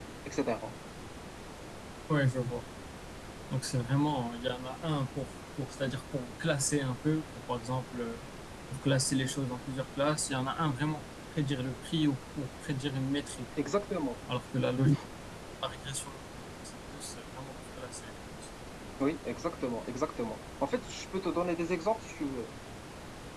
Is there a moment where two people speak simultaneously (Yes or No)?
No